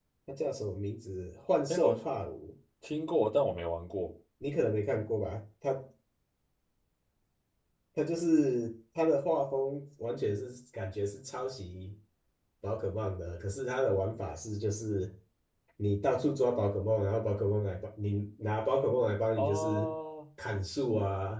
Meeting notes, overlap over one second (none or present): none